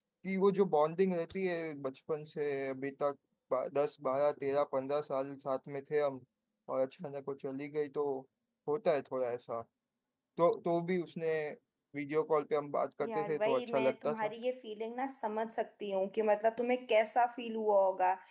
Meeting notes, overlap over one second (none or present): present